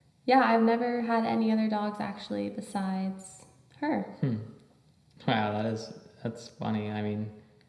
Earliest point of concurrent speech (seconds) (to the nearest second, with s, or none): none